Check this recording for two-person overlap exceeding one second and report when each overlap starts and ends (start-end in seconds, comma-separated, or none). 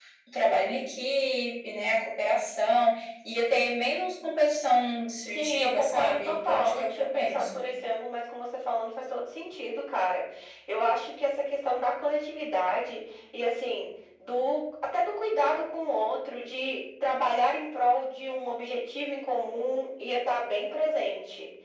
5.3-7.6